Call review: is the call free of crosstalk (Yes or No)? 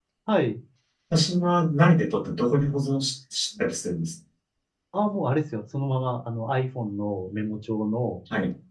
Yes